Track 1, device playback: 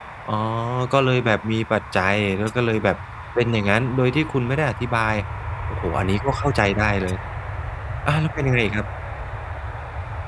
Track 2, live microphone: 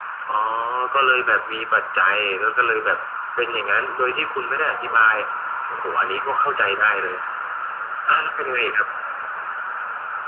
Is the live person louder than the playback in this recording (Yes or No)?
No